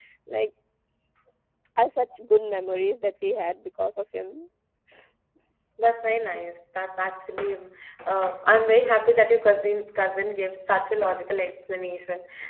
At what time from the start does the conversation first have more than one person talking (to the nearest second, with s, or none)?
none